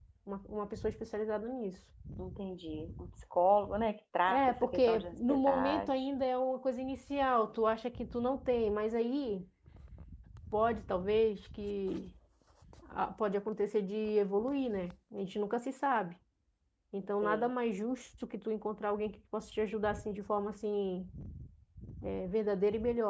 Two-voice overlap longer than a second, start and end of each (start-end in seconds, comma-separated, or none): 4.3-5.9